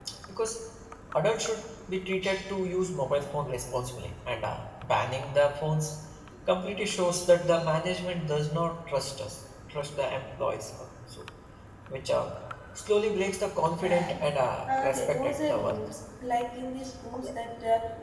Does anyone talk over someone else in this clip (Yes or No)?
Yes